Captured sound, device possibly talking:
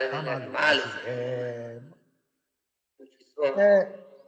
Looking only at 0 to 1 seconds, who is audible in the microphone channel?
both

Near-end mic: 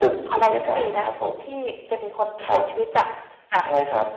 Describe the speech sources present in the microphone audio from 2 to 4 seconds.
echo only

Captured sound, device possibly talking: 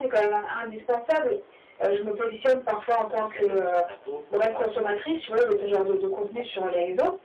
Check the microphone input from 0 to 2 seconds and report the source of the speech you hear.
echo only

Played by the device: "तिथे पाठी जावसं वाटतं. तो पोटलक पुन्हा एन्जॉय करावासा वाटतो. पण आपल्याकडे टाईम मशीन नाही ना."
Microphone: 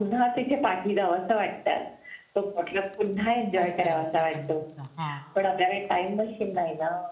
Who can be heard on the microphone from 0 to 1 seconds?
echo only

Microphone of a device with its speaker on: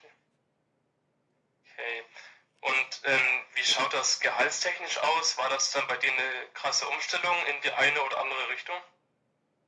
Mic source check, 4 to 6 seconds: echo only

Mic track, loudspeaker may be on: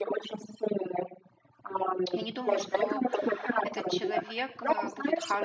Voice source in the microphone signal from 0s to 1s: echo only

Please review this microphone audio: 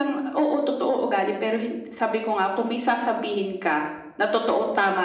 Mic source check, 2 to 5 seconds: echo only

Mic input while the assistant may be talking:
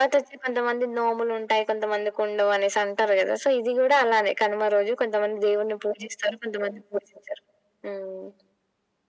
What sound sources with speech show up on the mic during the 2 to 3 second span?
echo only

